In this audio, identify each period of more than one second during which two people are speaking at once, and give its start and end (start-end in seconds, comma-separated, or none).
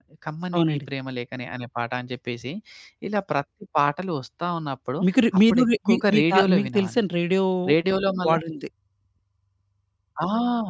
5.5-7.0